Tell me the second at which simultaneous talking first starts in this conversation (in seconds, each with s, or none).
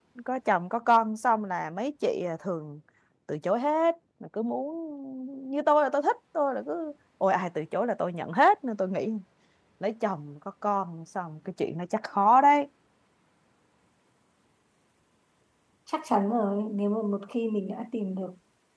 none